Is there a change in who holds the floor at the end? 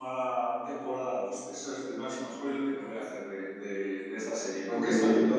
Yes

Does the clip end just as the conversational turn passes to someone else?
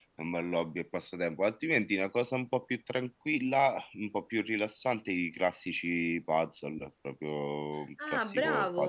Yes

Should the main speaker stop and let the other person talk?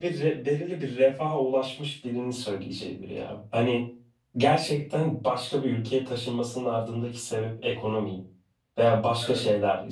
No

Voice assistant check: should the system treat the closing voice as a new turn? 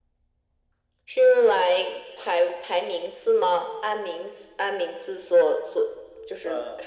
No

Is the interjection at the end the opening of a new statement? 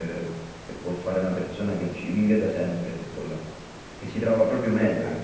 Yes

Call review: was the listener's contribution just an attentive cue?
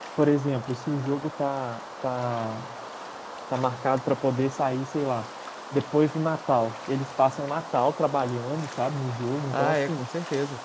No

